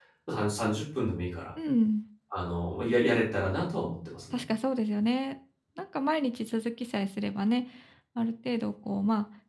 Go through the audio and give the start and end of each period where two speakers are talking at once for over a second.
none

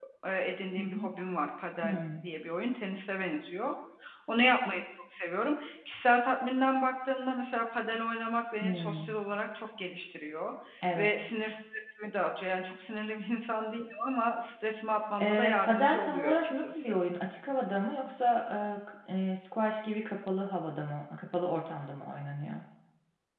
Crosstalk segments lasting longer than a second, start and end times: 15.2-16.9

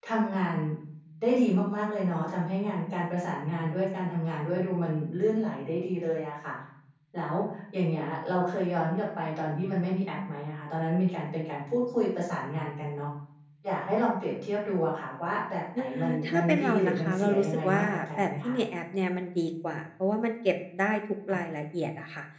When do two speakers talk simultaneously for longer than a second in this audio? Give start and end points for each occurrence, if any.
15.8-18.6

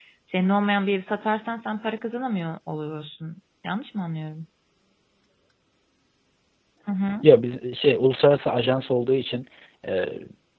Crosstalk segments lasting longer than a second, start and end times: none

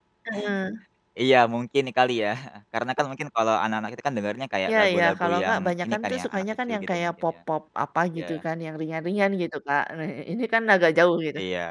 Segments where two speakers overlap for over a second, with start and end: 4.7-7.1

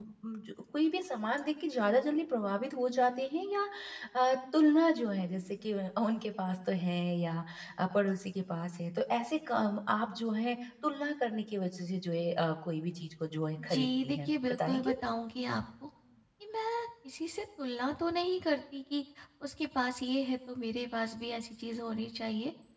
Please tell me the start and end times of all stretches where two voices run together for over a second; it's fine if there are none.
13.6-14.9

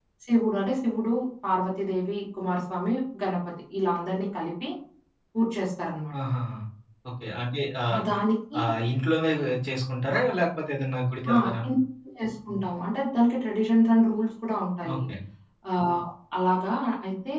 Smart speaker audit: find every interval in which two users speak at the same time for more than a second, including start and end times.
none

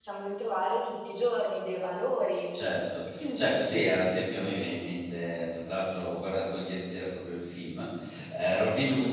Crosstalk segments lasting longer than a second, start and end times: none

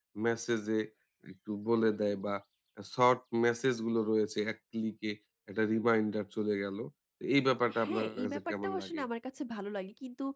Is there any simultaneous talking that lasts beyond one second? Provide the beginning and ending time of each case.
7.8-9.0

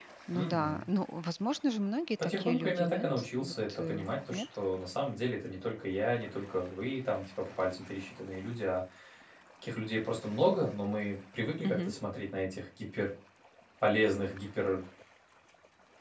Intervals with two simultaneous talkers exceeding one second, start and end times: 2.2-4.4

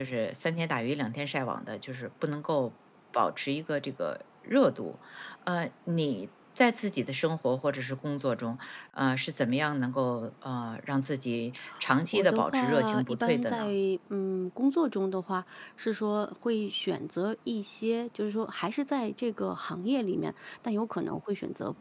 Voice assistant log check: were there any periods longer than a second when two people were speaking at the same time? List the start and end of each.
12.1-13.7

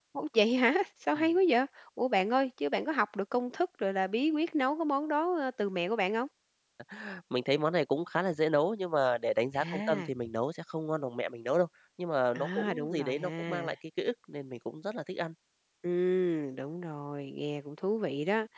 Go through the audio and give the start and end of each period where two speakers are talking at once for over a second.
12.4-13.7

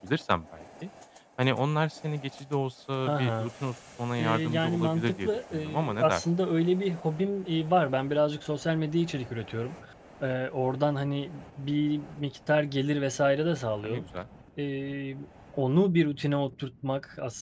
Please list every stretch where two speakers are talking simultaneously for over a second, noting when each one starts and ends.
4.2-6.2

